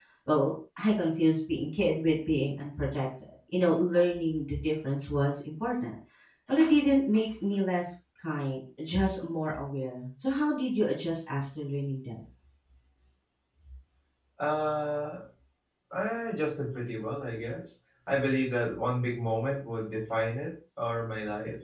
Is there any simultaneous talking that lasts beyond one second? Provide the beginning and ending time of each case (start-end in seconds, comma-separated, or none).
none